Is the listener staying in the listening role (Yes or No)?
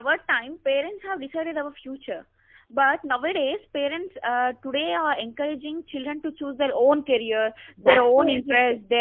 Yes